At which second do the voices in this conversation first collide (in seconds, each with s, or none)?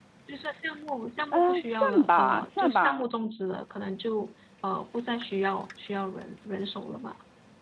1.3 s